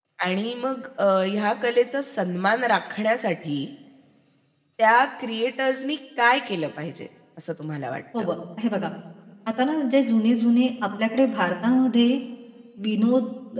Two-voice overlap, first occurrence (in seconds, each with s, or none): none